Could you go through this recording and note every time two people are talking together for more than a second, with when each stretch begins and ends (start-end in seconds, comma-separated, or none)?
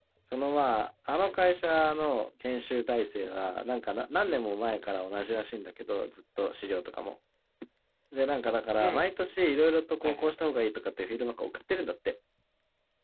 none